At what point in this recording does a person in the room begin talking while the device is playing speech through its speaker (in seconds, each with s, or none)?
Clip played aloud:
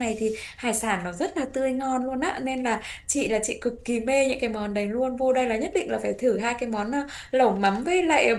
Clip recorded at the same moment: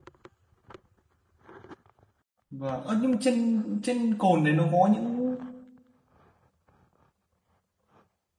2.5 s